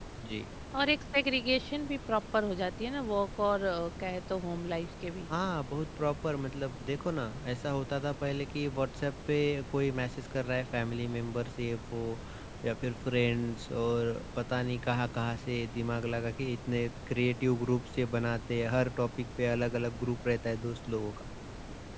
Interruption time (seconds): none

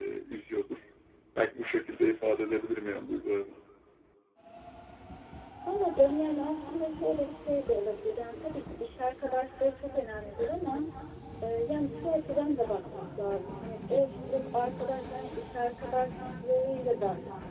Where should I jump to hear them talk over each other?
none

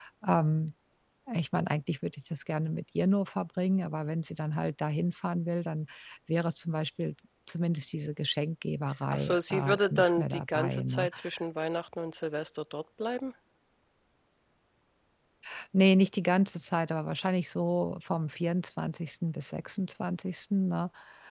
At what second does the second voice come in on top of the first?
9.1 s

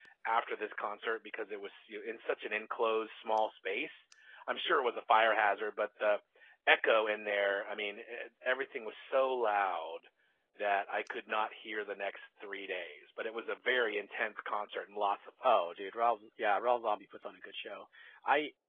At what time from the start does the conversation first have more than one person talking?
none

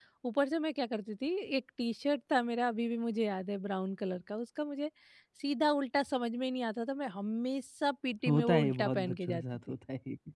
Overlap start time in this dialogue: 8.2 s

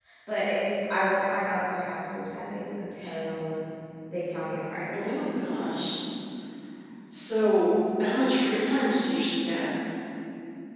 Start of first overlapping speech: none

